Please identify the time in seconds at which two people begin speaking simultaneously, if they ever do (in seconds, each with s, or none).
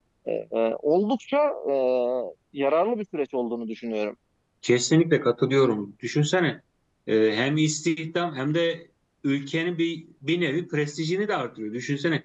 none